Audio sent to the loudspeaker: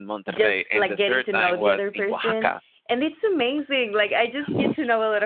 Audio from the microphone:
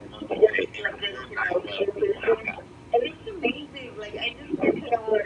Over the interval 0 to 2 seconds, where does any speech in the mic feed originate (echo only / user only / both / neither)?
echo only